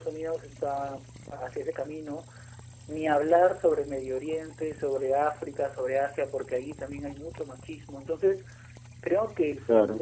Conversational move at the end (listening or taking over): listening